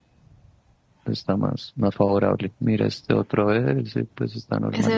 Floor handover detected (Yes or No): Yes